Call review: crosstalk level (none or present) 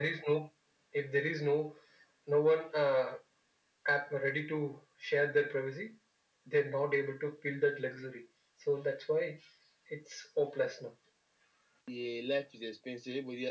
none